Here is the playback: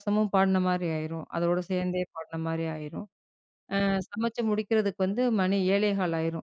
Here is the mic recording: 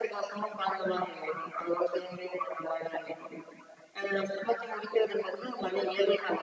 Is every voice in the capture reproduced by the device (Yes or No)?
Yes